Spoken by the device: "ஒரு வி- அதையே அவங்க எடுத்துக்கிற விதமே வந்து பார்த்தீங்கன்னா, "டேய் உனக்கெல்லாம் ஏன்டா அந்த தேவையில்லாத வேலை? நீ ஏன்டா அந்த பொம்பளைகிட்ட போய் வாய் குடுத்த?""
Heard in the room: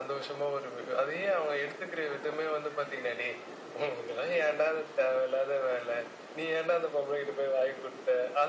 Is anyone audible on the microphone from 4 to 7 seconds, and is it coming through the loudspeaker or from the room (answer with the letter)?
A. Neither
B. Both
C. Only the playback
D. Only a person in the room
C